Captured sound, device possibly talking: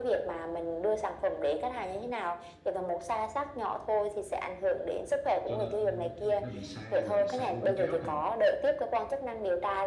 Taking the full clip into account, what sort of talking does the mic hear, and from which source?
both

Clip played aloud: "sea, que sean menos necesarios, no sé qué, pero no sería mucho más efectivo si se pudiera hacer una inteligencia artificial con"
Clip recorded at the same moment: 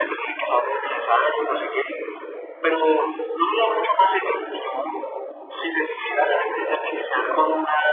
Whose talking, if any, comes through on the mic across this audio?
echo only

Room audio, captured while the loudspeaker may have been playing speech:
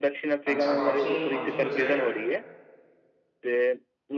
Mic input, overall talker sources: both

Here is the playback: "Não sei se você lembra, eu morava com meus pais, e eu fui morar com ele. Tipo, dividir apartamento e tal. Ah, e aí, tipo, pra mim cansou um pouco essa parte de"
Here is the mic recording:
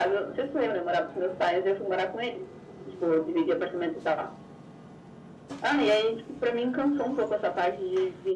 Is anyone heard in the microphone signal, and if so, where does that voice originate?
echo only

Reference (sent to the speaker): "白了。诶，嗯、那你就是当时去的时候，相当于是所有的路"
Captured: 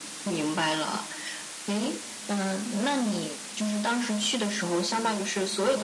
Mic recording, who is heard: echo only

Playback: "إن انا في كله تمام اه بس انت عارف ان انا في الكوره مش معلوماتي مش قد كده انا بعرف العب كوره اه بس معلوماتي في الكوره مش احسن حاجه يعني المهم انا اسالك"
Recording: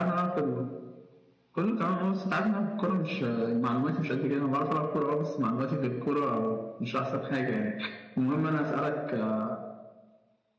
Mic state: echo only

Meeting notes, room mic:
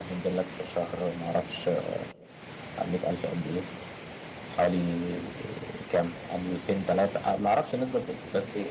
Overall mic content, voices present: user only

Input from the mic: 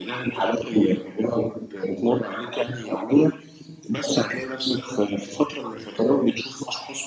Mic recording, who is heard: echo only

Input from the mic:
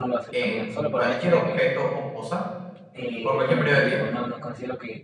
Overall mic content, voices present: both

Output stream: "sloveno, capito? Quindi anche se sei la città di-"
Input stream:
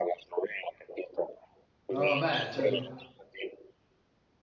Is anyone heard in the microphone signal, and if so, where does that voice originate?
both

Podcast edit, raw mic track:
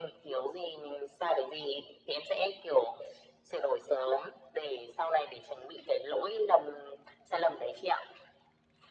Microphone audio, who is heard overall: echo only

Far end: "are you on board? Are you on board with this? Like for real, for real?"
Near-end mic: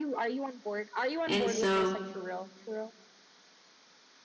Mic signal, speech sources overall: both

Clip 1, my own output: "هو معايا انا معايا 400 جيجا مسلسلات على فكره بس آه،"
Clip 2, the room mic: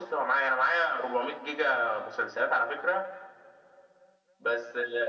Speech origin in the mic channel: echo only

